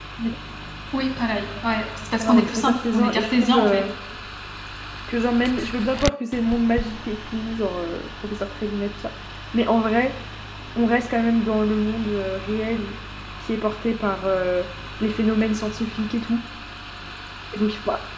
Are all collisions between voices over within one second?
No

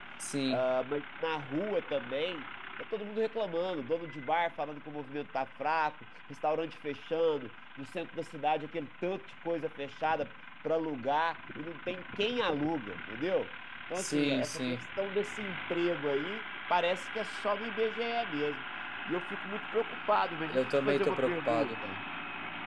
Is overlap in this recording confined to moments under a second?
No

